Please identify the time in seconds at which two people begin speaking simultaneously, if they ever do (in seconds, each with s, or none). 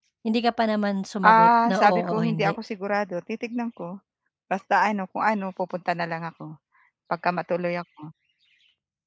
1.2 s